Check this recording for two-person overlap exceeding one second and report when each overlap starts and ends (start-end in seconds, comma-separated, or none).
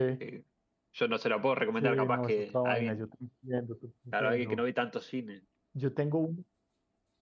1.8-3.0